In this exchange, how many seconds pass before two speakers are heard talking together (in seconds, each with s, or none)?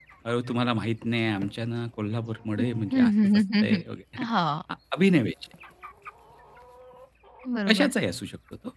2.6 s